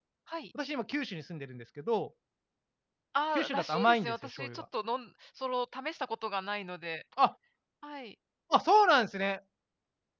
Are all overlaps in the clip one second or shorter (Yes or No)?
No